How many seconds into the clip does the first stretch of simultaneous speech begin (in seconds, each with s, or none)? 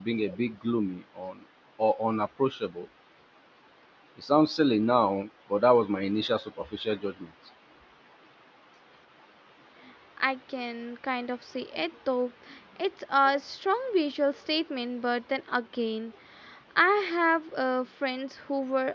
none